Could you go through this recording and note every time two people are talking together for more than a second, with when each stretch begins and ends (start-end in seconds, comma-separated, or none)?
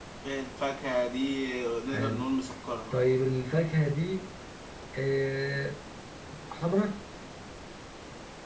none